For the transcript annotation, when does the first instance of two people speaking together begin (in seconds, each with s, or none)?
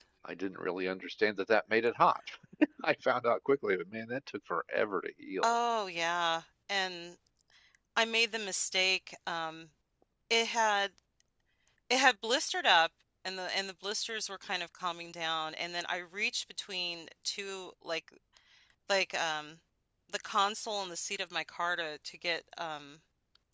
none